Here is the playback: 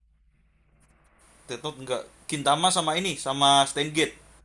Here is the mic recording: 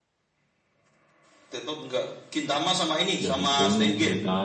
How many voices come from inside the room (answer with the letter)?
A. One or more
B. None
A